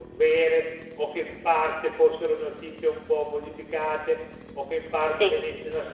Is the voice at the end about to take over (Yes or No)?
No